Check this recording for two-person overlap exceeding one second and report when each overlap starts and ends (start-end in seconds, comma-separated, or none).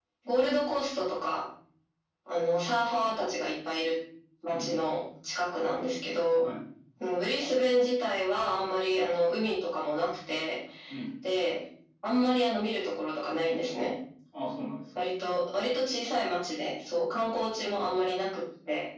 none